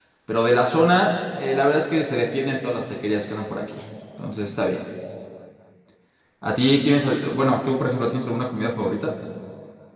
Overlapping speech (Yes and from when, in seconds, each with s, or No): No